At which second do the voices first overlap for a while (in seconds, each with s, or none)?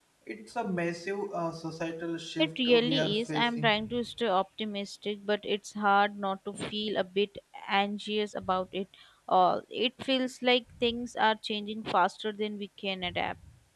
2.4 s